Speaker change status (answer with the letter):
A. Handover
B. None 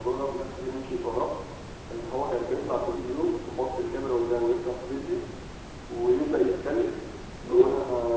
B